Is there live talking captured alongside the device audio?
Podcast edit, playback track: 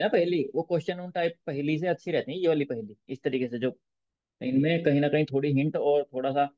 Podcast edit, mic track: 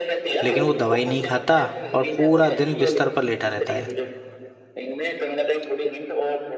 Yes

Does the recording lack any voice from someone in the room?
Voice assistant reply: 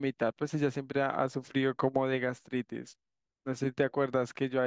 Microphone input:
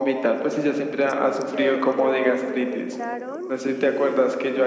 No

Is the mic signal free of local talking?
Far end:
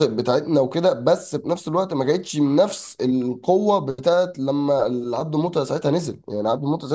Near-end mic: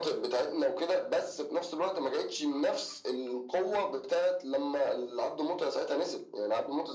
Yes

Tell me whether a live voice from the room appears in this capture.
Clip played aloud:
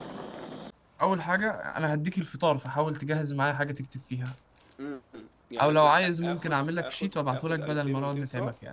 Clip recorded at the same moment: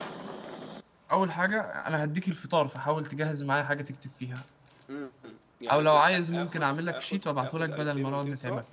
No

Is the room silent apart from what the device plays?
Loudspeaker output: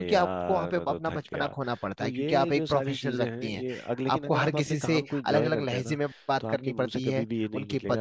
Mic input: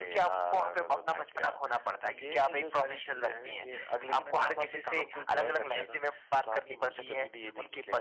Yes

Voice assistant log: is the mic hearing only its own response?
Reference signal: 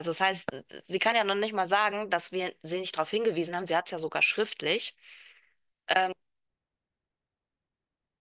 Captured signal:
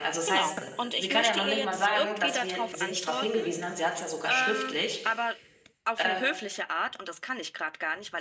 No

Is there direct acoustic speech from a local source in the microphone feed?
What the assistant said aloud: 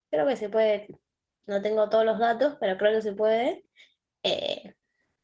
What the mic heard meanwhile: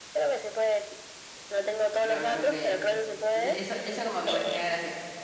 Yes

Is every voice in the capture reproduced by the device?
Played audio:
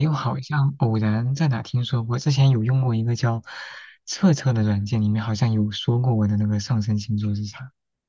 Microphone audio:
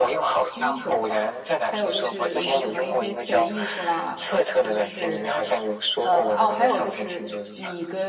No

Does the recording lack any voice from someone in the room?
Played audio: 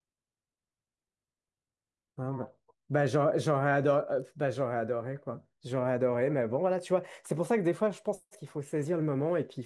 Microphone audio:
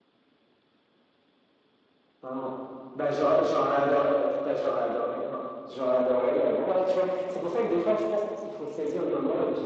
Yes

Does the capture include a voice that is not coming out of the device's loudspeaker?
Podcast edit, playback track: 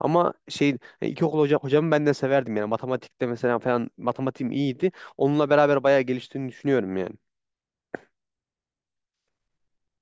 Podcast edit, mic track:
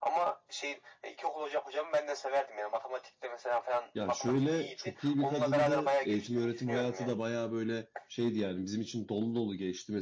Yes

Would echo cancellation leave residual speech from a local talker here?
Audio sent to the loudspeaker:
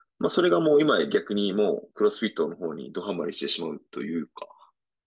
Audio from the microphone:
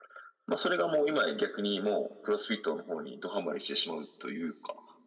No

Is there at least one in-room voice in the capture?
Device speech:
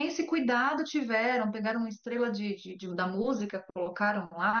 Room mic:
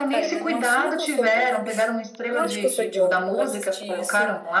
Yes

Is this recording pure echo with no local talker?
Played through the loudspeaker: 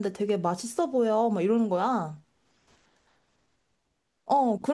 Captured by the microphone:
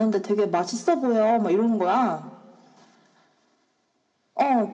Yes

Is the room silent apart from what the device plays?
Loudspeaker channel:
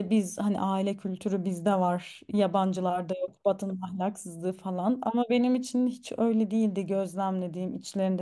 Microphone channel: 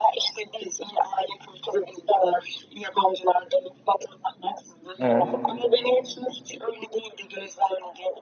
No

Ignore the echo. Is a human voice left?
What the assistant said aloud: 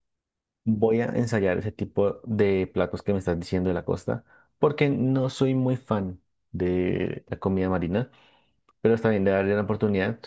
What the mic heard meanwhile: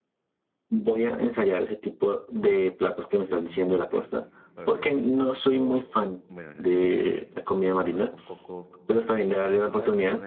Yes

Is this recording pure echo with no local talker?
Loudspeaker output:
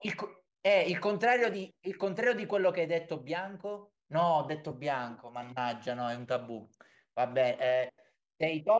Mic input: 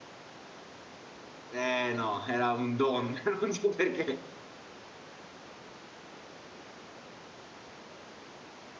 No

